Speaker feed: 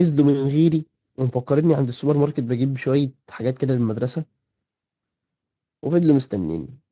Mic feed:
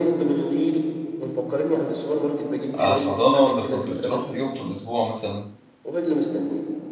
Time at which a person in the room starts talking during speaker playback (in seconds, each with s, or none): 2.8 s